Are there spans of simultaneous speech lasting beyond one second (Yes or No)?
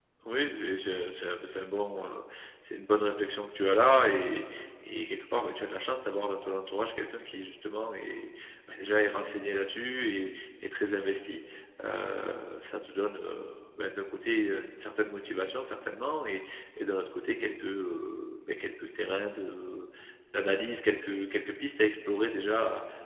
No